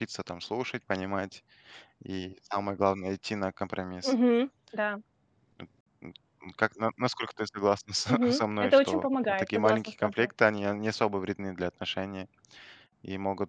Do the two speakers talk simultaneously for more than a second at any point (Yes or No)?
Yes